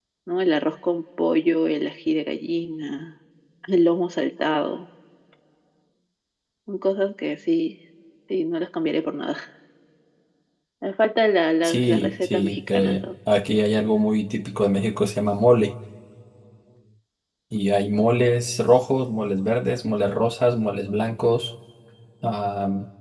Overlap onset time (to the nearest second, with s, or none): 12 s